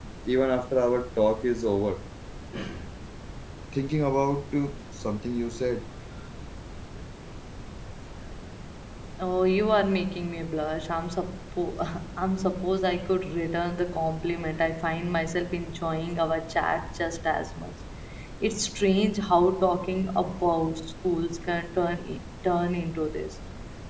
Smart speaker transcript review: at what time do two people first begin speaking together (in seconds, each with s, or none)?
none